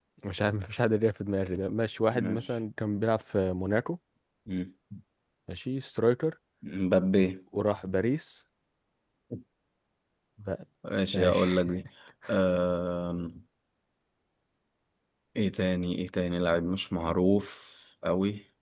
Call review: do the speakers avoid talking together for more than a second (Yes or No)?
Yes